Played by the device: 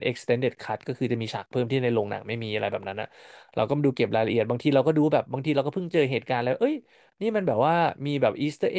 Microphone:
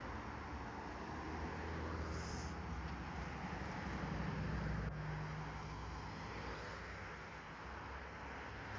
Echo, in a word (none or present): none